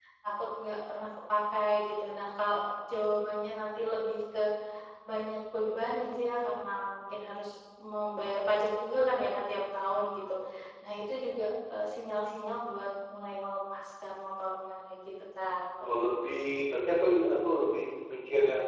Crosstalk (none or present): none